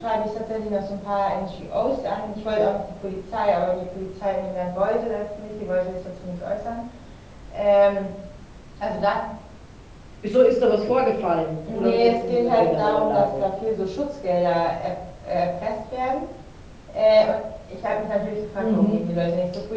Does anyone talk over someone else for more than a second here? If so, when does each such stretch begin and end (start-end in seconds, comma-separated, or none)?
11.7-13.4